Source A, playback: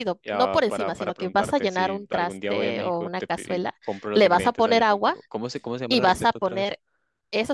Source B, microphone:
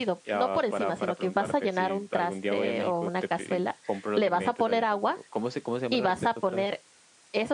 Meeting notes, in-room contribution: none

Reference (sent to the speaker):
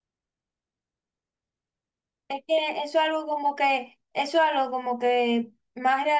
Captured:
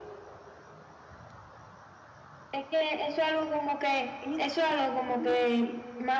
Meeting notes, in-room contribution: present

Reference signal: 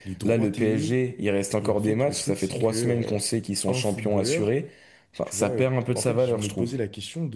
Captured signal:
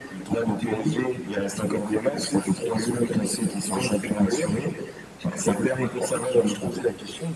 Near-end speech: none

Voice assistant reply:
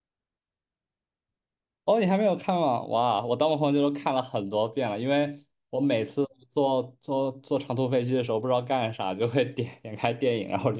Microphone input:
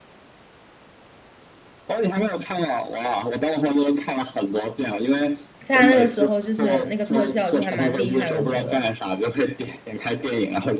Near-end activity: present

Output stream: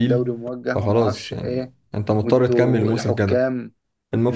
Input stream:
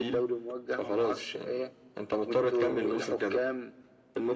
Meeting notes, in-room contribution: none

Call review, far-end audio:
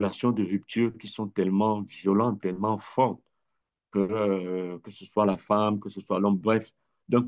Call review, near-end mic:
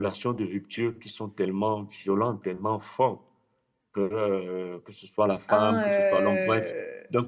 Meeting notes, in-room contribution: present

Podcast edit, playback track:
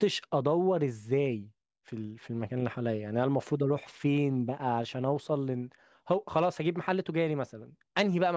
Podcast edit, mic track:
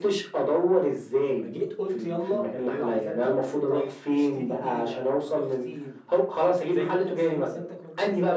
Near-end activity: present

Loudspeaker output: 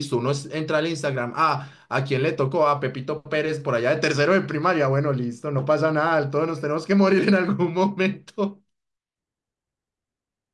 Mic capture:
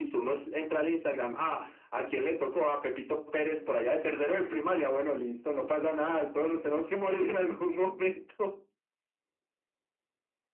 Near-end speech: none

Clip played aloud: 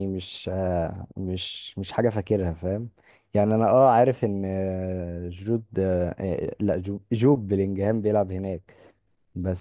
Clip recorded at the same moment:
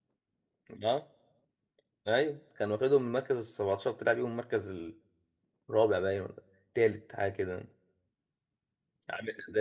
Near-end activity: present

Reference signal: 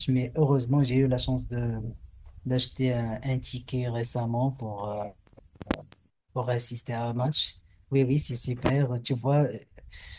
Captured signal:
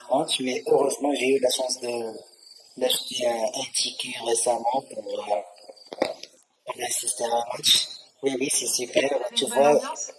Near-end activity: present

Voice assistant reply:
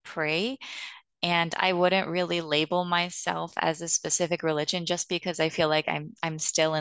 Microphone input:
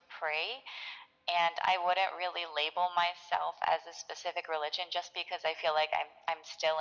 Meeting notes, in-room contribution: none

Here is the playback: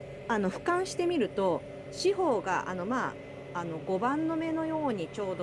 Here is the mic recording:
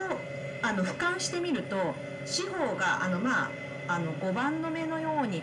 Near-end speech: none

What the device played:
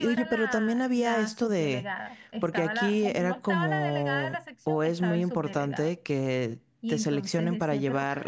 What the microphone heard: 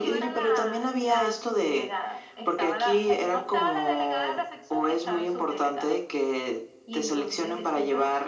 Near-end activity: none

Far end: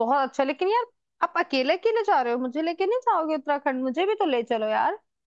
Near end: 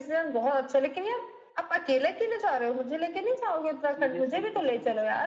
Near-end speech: present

